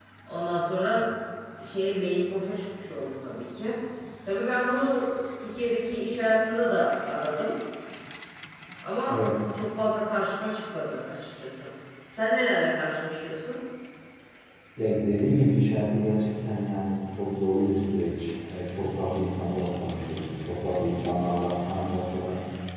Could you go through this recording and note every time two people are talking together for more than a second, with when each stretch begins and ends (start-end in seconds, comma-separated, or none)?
none